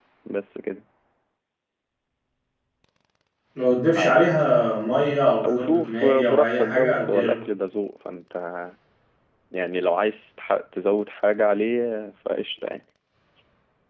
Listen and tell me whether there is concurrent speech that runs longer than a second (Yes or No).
Yes